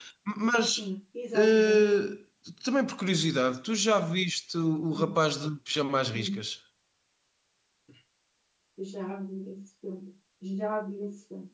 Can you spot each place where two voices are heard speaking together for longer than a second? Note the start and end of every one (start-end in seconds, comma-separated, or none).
none